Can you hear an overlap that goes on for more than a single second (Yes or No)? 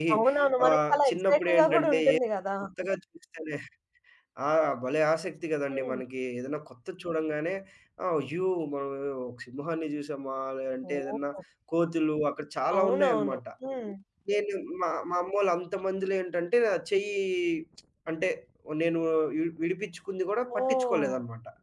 Yes